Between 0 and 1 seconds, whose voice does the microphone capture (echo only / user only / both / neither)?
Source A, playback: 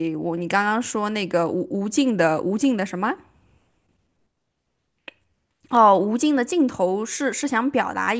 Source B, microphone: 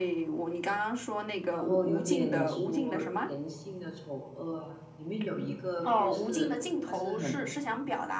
echo only